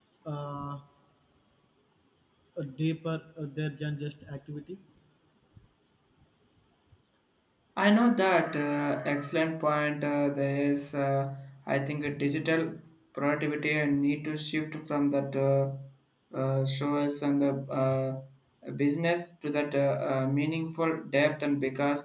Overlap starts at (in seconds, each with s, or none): none